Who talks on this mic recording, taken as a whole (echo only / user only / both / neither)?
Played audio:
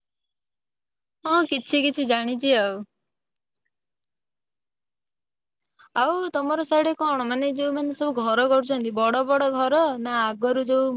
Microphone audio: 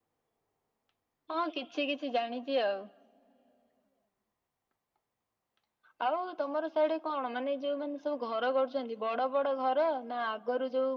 echo only